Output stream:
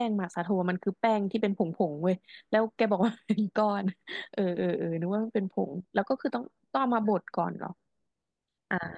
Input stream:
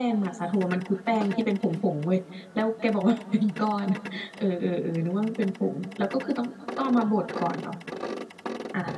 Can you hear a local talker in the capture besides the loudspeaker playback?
No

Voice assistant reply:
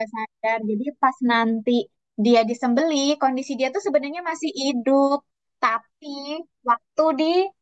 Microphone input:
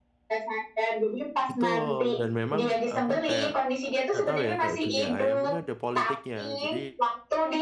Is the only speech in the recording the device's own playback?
No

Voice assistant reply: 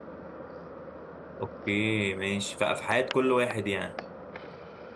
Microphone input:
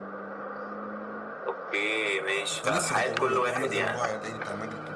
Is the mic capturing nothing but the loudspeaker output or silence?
No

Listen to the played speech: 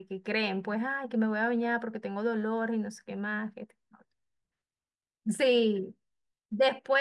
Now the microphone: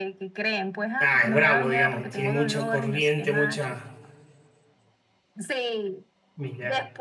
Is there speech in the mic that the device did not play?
Yes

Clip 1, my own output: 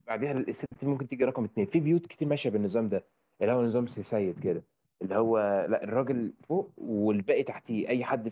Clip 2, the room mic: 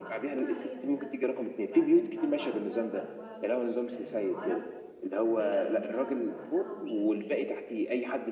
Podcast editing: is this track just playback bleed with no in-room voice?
No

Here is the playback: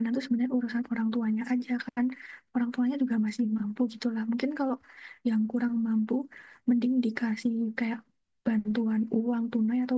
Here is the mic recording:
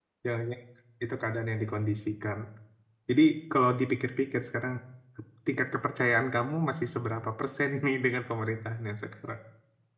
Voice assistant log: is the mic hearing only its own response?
No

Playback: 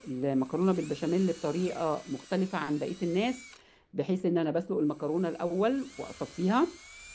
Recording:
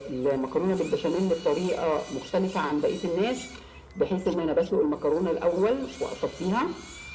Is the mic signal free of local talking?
Yes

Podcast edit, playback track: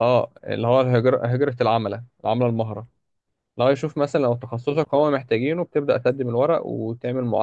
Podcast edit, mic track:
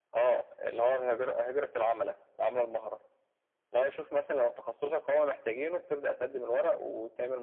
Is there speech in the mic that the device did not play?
No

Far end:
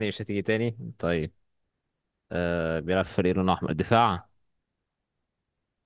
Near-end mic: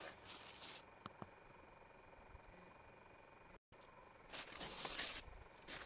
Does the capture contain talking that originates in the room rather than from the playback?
No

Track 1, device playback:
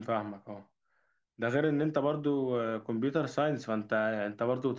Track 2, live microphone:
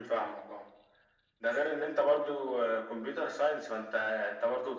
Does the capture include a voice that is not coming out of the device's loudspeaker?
No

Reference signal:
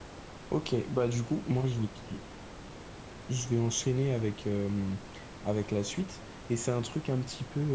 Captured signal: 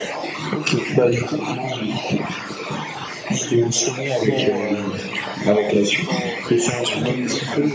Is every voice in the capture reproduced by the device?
No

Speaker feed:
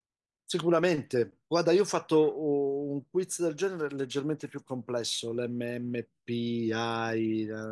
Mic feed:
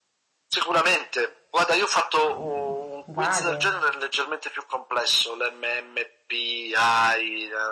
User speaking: Yes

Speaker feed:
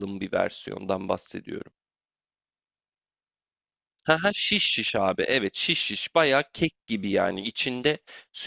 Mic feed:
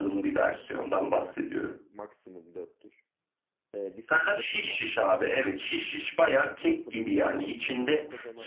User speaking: Yes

